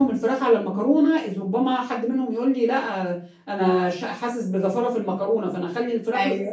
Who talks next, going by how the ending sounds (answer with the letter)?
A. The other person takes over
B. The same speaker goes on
B